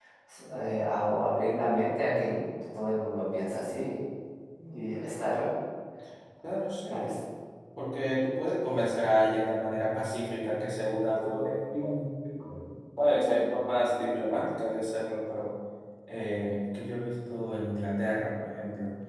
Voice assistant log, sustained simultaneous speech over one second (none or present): none